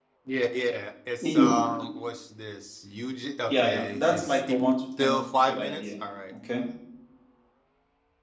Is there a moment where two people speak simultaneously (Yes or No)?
Yes